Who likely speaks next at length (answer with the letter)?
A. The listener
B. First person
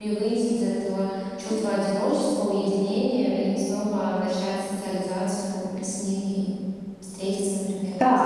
A